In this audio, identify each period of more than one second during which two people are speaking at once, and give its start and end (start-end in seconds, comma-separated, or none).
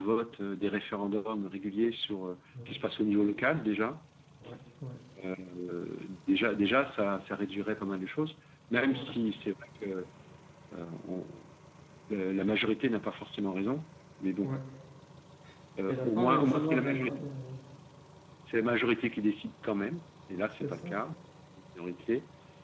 15.9-17.3